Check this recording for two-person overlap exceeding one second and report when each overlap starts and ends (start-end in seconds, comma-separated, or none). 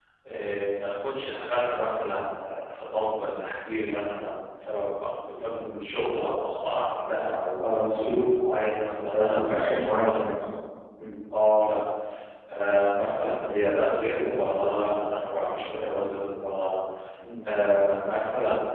9.1-10.3